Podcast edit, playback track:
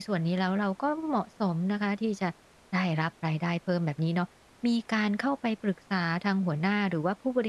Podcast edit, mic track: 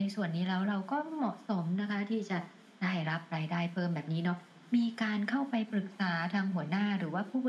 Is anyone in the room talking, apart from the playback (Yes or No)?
No